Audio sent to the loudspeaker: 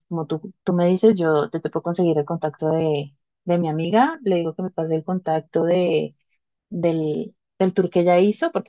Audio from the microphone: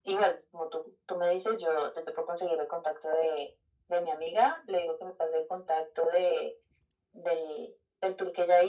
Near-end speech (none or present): none